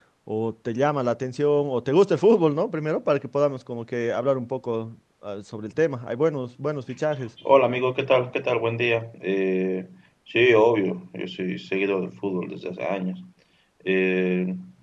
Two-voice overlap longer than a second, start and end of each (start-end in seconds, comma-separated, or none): none